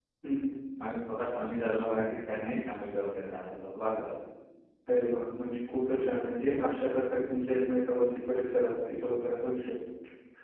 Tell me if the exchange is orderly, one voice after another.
Yes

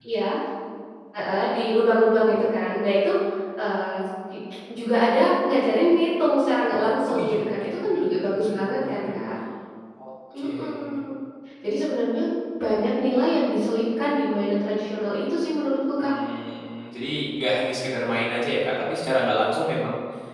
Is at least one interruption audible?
Yes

